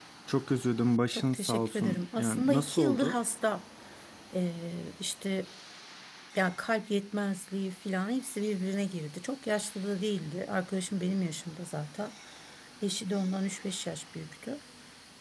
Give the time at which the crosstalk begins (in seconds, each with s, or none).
1.1 s